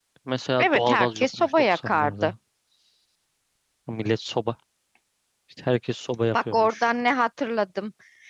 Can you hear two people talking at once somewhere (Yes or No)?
Yes